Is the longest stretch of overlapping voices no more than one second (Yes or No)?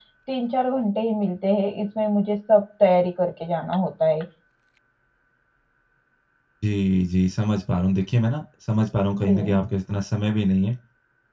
Yes